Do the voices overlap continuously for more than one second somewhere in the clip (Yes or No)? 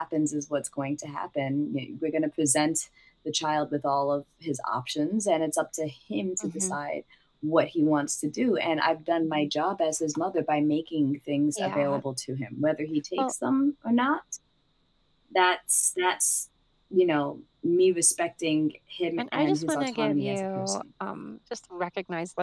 Yes